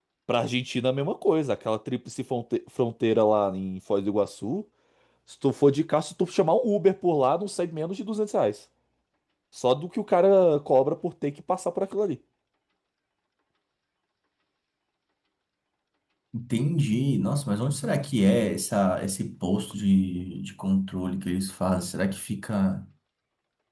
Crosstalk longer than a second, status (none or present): none